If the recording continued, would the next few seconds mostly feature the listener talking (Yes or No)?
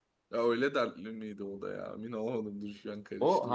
Yes